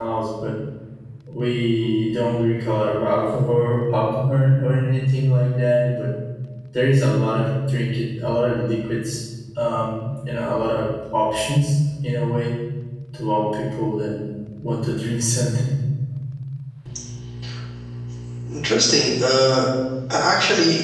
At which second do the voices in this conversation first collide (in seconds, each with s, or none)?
none